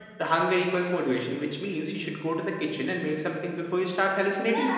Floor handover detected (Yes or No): Yes